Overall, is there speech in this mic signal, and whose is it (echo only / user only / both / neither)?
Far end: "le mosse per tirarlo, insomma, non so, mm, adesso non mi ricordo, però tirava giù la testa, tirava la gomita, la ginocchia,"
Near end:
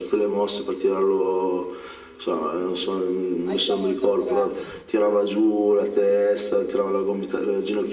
both